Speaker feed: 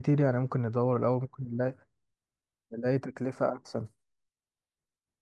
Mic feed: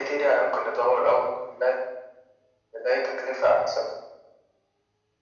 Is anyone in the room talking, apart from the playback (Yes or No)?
No